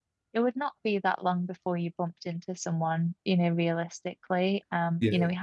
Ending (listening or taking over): listening